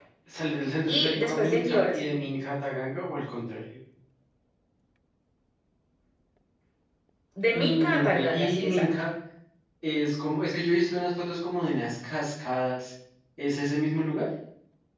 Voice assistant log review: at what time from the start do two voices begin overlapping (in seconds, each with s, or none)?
0.9 s